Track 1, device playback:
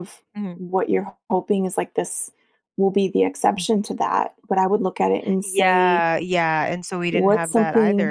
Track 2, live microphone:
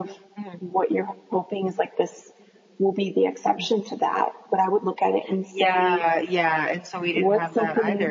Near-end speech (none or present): none